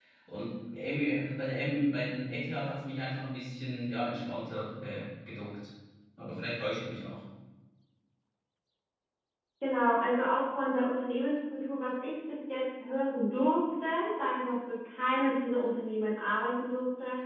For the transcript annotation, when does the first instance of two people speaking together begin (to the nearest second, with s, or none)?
none